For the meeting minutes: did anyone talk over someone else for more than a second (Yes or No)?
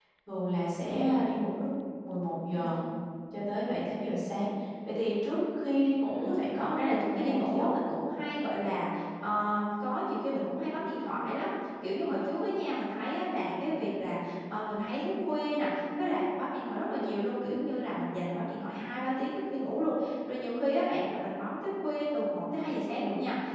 Yes